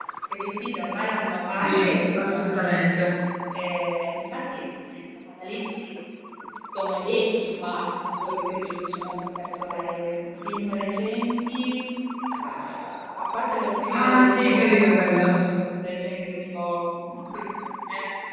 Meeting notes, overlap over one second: present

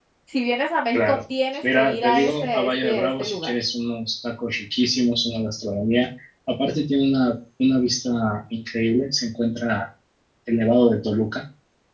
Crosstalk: present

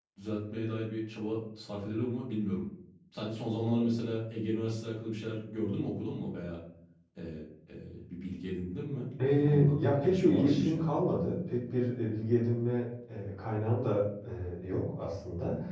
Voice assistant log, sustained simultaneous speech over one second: present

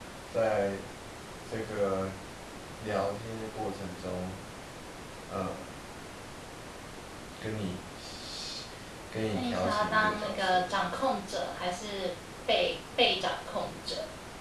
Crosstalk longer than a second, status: present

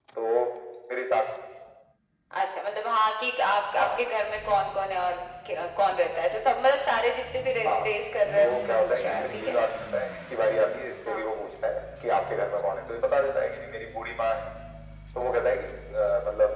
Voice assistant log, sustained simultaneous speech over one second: present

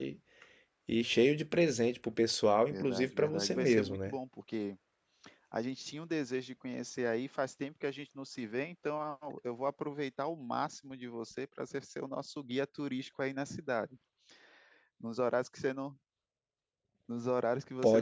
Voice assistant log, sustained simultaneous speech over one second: present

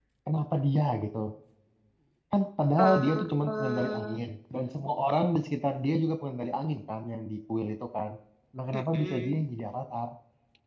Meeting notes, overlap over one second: present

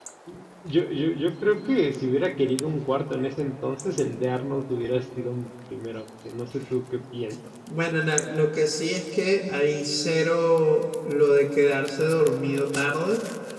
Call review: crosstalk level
none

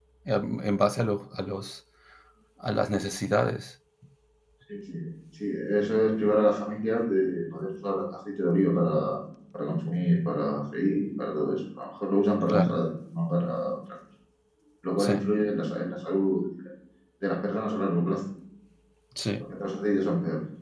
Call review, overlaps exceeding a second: none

